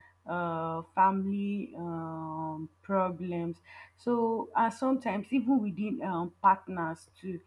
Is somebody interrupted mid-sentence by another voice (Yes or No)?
No